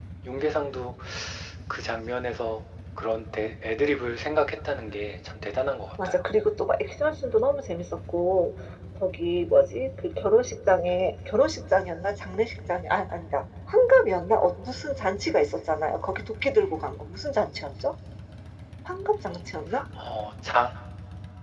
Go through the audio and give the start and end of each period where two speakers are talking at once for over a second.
none

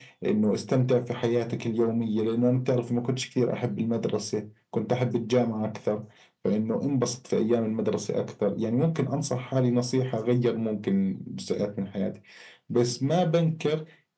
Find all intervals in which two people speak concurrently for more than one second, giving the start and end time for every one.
none

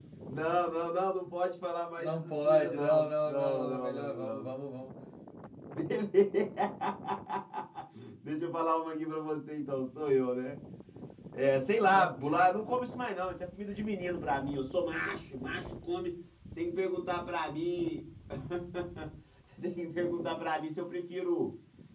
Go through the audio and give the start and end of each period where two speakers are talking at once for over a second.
2.0-4.5

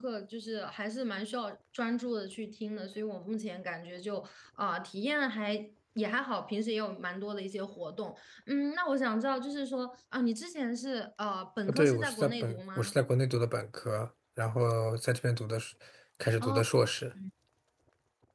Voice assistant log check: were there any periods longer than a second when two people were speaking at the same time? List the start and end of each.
11.7-12.9

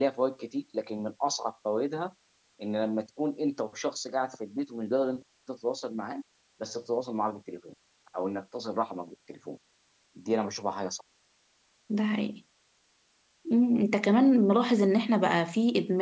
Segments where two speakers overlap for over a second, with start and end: none

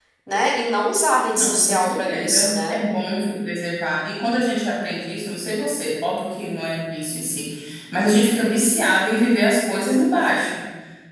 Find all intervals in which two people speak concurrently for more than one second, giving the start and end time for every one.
1.4-2.8

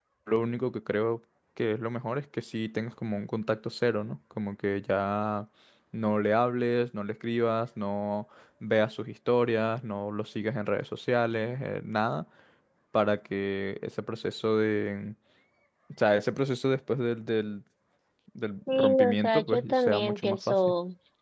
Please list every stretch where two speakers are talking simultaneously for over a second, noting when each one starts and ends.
18.7-20.6

